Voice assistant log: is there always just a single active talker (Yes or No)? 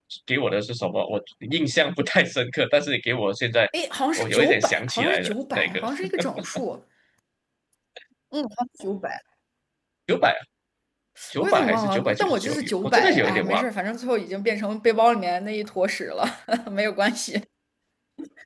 No